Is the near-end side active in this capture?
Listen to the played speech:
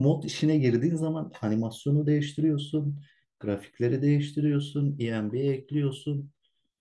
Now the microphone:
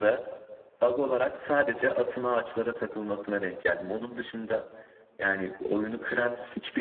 Yes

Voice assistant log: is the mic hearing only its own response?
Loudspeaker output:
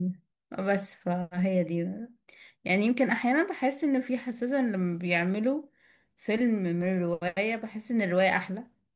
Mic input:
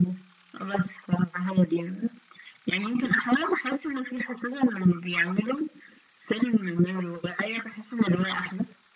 Yes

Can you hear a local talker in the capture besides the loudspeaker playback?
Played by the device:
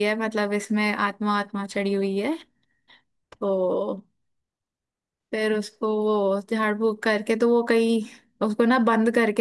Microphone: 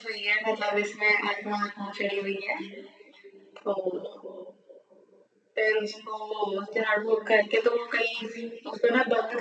No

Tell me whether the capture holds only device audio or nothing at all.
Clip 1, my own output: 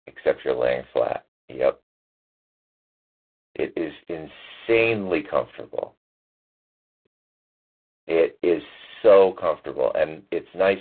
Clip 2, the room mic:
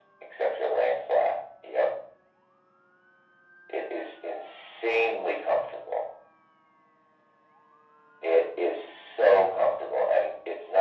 Yes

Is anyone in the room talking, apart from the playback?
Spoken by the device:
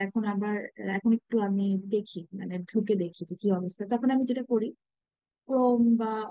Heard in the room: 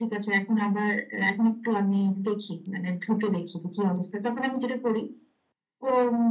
No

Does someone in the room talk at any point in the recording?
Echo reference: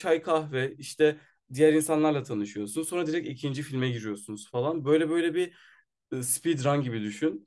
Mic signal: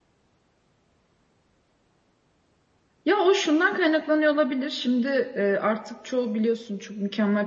Yes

